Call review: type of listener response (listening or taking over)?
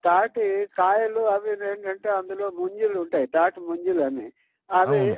listening